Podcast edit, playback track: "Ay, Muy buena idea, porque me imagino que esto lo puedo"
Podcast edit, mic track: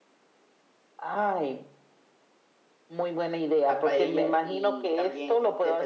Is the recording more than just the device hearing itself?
Yes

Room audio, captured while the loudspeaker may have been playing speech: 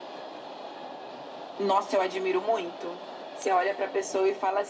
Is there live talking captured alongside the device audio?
No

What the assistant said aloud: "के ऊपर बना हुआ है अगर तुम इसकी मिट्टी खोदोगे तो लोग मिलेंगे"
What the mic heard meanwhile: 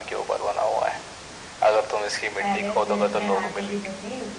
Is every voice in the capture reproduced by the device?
No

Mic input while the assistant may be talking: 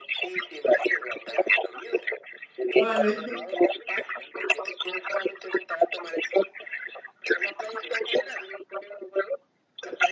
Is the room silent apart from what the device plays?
No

